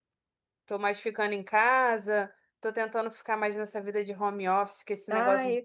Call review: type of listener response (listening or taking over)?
taking over